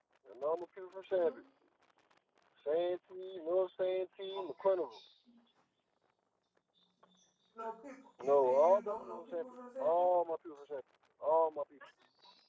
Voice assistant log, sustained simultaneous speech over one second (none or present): present